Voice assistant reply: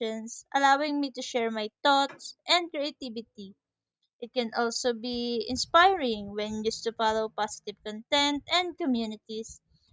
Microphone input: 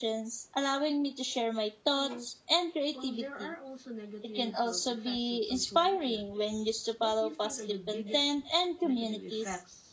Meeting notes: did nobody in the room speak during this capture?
No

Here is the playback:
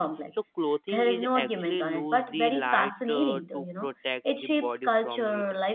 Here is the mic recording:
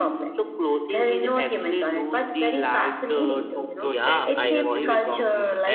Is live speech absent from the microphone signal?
No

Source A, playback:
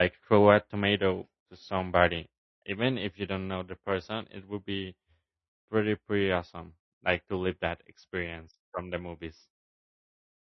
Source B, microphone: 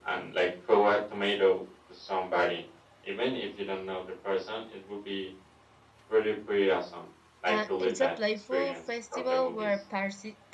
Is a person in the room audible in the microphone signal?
Yes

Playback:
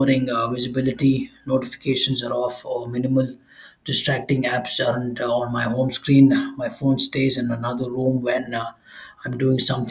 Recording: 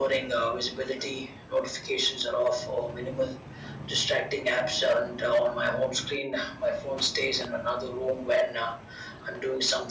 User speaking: No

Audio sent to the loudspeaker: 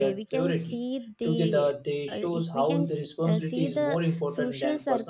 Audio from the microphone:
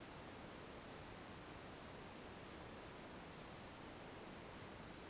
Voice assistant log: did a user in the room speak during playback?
No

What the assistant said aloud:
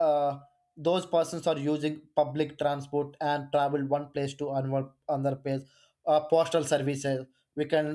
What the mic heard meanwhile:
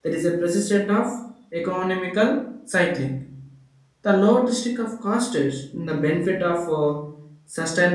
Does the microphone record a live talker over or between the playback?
Yes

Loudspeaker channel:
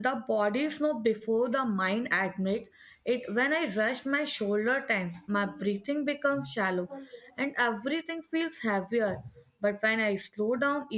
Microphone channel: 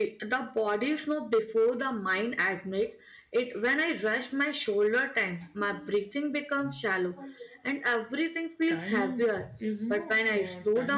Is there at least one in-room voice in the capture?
Yes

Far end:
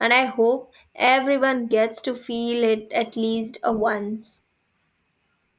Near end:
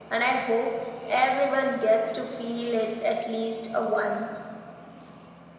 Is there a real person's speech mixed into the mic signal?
No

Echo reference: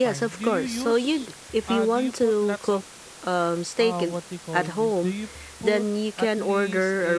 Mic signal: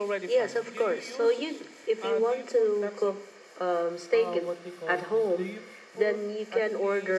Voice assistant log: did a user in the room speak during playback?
No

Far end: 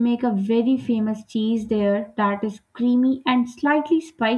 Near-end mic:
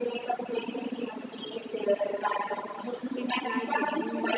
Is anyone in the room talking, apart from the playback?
Yes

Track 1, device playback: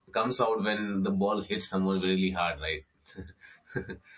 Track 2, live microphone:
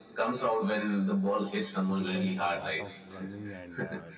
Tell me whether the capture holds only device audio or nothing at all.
No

